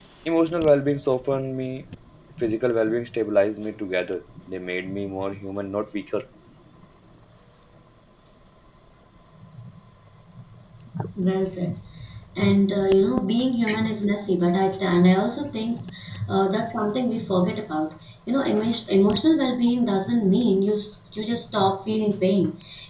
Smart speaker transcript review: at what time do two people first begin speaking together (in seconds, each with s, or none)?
none